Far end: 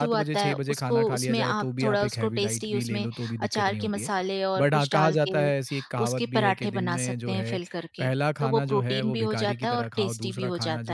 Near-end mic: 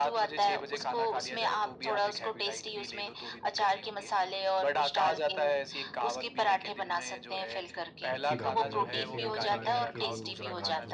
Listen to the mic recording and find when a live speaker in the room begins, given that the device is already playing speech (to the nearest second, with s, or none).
8 s